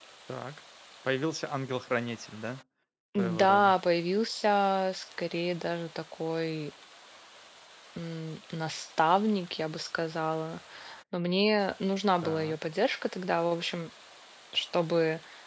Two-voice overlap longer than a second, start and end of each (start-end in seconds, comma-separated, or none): none